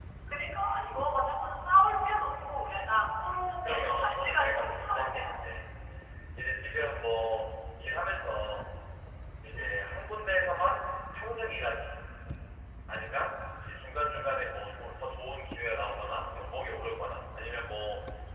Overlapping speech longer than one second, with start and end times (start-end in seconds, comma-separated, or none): 3.6-5.5